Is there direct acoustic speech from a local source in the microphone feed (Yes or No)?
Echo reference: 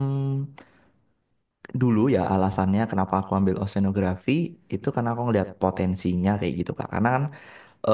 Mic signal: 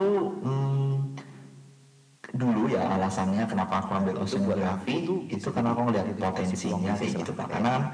Yes